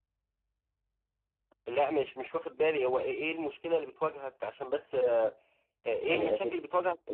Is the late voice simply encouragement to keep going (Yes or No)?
No